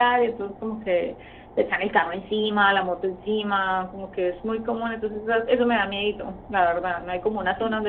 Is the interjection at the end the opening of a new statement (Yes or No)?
No